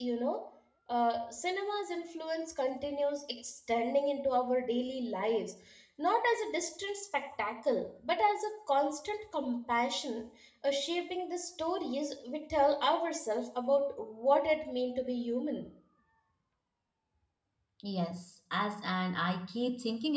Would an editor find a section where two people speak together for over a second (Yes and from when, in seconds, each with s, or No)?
No